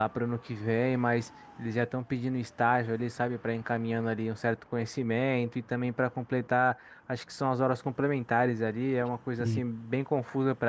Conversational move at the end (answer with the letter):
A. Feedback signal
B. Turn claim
A